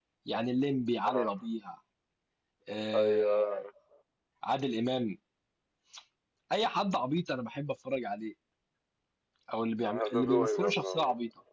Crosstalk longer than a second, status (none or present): present